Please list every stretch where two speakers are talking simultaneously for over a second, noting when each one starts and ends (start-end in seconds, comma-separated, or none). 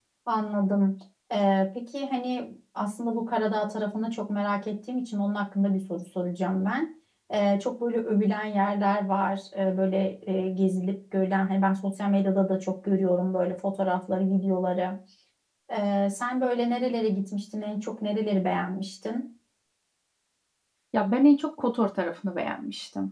none